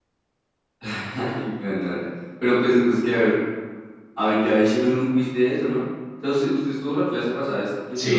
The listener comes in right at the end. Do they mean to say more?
Yes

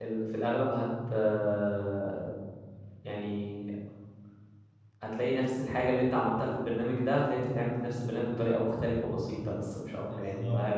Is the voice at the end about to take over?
Yes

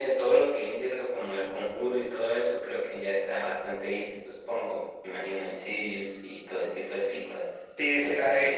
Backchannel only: No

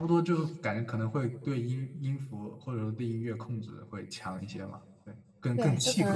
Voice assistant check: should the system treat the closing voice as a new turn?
Yes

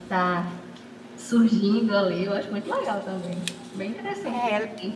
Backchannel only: No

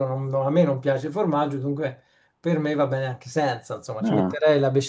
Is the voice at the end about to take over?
No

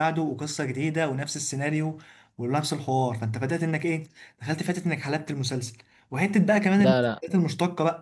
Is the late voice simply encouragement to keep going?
Yes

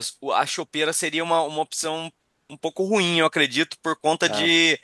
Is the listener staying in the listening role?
Yes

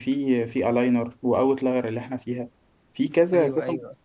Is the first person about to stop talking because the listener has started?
No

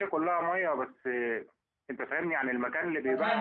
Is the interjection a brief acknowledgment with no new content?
No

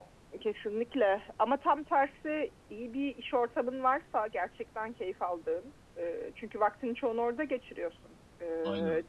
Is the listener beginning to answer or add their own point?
No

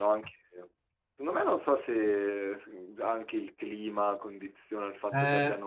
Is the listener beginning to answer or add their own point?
Yes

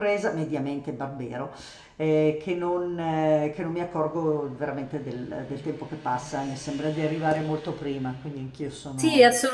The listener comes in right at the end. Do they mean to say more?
Yes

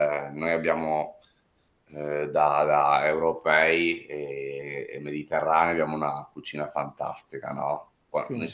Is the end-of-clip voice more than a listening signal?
No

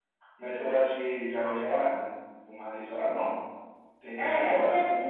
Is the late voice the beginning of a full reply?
Yes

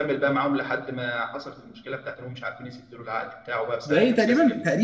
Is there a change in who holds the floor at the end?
Yes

